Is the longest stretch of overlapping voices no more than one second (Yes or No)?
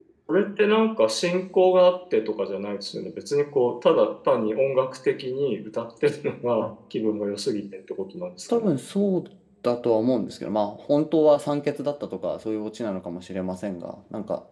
Yes